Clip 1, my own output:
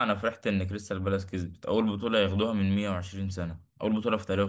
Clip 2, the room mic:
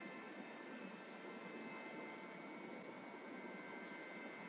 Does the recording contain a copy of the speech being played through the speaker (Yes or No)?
No